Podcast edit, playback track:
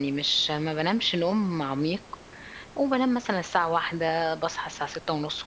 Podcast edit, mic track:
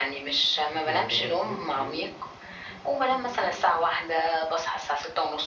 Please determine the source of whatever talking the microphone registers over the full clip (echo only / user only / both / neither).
both